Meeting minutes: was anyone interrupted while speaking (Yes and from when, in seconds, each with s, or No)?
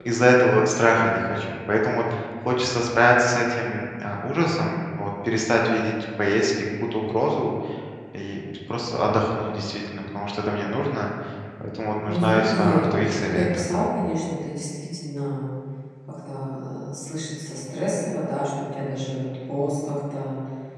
Yes, from 12.1 s